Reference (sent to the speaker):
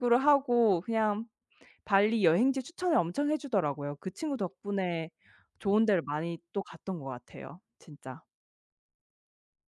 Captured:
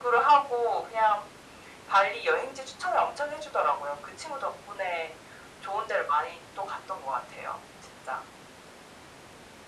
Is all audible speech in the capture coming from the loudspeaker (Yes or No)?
Yes